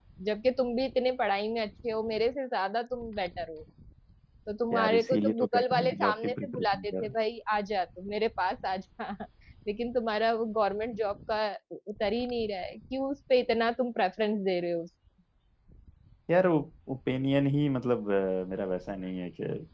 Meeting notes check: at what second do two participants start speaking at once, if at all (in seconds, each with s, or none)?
4.7 s